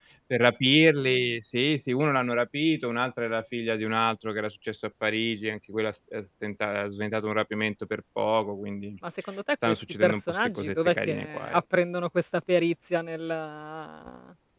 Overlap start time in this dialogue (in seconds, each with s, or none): 9.6 s